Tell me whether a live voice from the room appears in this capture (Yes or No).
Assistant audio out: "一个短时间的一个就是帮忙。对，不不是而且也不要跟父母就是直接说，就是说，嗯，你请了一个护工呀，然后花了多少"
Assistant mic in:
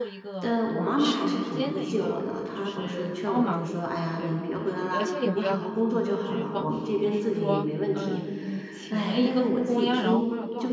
Yes